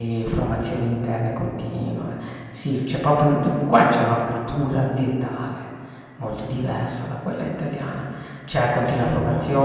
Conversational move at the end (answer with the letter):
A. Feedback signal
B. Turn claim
A